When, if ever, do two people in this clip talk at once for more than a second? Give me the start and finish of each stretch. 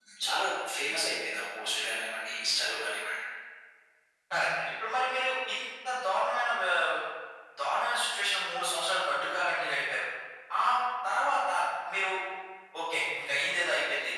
none

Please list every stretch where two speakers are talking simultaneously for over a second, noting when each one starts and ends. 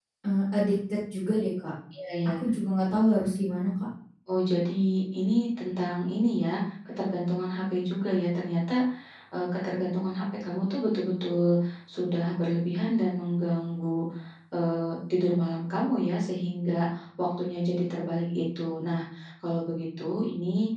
none

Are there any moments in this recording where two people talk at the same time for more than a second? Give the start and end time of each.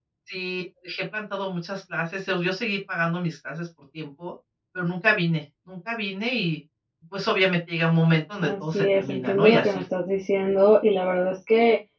8.4-9.8

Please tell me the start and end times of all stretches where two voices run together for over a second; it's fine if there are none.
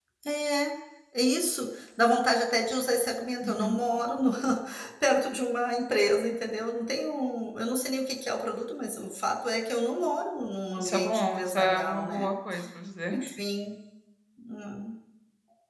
10.8-12.3

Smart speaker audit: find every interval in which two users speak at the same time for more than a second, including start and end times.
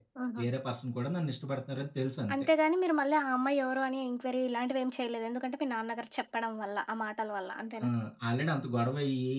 none

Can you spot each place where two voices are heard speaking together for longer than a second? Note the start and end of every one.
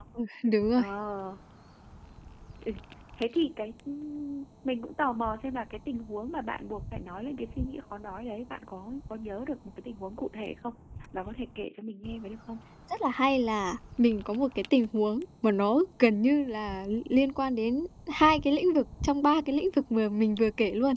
none

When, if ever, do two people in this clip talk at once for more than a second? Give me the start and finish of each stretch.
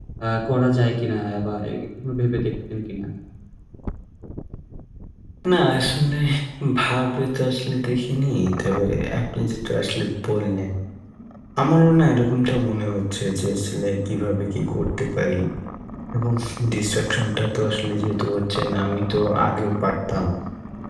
none

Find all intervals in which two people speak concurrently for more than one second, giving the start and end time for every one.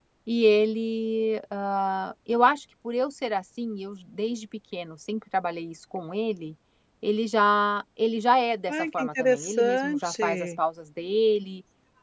8.7-10.5

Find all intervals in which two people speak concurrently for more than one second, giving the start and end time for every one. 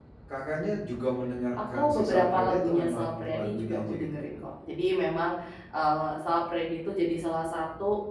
1.7-4.2

